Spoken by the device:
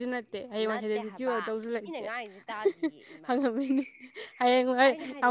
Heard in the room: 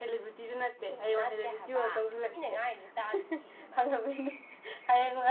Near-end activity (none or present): none